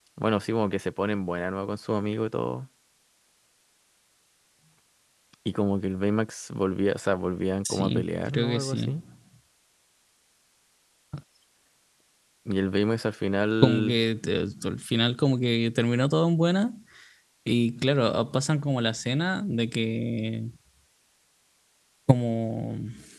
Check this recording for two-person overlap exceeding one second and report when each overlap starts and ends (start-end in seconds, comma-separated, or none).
7.6-8.9